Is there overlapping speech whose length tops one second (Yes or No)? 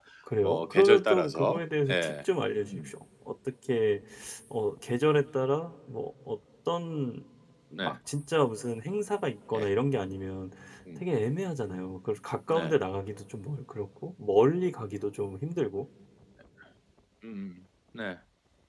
Yes